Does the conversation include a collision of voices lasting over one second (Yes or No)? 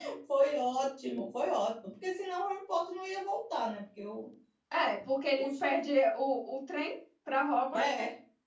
No